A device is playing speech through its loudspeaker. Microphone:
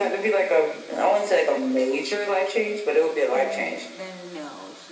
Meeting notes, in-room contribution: present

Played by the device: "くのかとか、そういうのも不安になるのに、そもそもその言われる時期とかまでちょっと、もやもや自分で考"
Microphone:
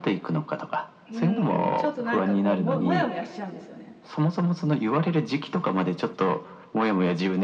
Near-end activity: present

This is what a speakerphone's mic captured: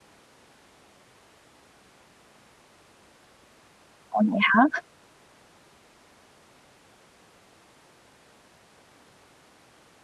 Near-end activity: present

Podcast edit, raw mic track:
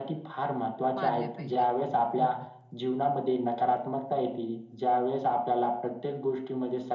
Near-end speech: present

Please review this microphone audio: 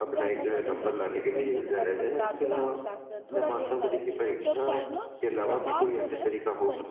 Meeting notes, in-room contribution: present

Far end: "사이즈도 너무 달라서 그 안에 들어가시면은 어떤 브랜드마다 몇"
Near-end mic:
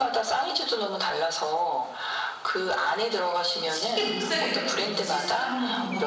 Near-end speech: present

